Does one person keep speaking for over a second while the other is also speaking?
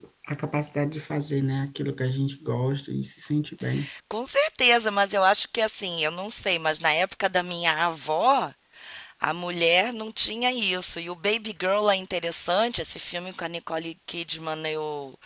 No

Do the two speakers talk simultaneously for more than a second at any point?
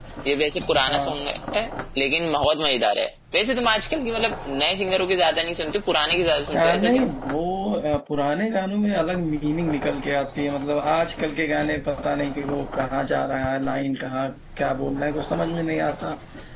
No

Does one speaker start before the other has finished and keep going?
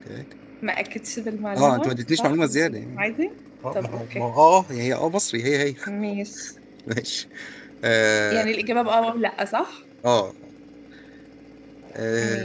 Yes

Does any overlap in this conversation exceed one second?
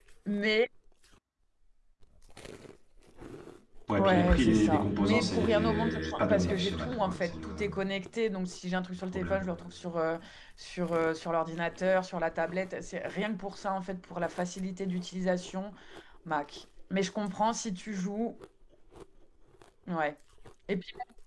Yes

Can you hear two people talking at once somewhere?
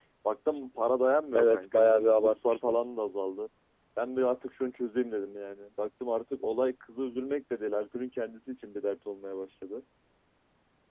Yes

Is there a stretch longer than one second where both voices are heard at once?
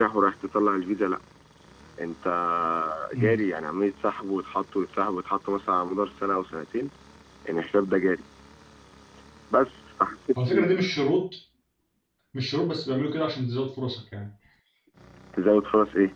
No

